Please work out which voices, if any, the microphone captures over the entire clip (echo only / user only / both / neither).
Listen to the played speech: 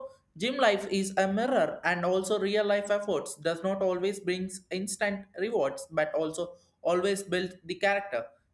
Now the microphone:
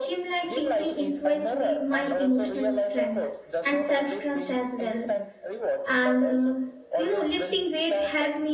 both